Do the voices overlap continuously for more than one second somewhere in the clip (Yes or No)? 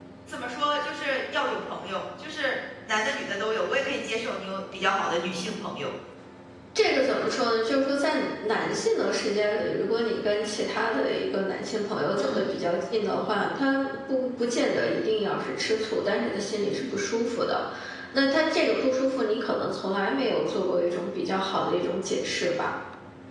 No